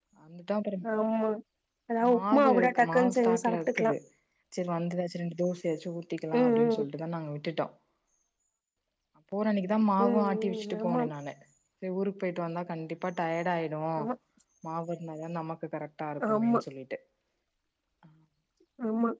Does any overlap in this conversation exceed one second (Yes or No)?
Yes